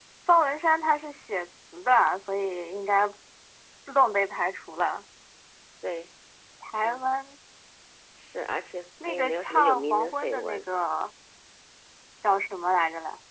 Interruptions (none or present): present